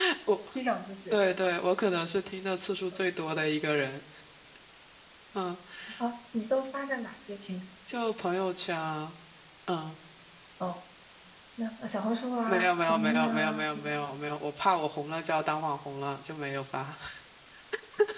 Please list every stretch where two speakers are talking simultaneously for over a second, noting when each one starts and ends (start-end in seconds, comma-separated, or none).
12.5-14.0